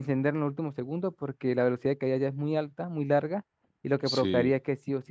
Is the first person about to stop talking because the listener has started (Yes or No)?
No